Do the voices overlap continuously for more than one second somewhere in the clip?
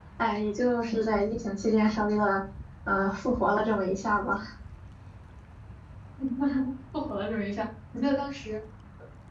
No

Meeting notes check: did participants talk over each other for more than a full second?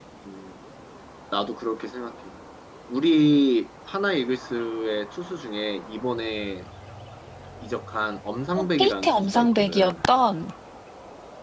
Yes, from 8.6 s

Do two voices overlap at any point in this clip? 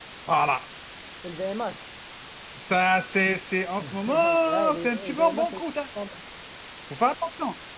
Yes, from 3.8 s

